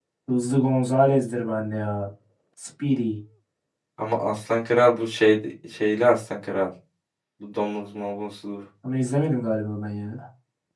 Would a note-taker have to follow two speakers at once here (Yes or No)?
No